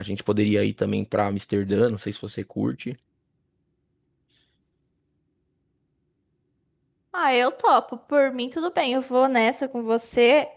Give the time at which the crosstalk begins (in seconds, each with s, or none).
none